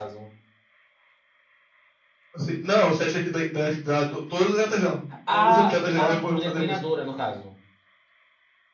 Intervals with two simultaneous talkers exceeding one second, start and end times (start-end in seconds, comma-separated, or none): 5.3-6.8